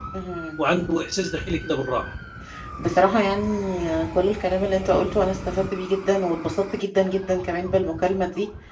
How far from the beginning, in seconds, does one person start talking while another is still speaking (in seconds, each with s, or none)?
none